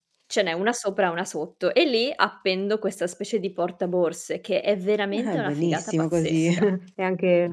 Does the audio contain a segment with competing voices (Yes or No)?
Yes